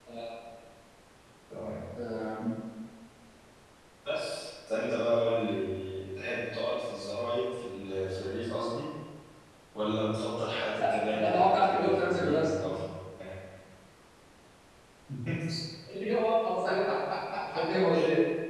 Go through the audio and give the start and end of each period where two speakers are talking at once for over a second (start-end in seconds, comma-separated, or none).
11.2-12.5